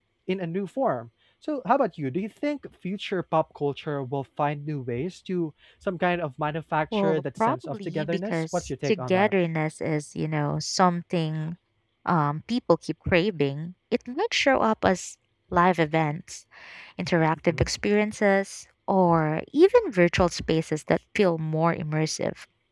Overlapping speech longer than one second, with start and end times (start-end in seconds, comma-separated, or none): 6.9-9.3